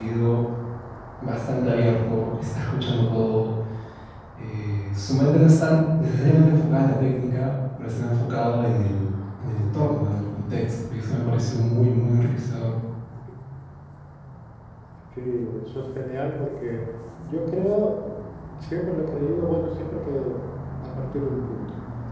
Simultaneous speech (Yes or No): No